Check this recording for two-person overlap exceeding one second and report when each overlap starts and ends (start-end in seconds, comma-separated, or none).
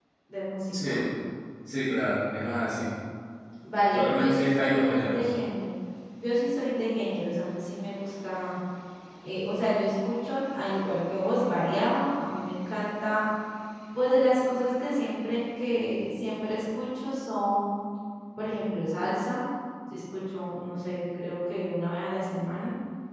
3.9-5.3